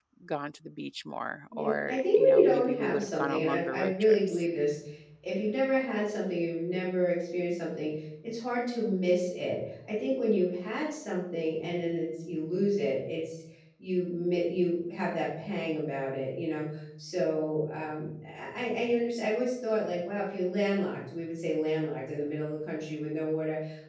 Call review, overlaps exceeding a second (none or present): present